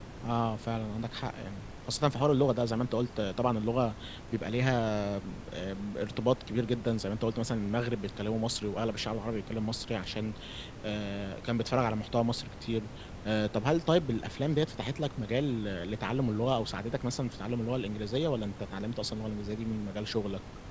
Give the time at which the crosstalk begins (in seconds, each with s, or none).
none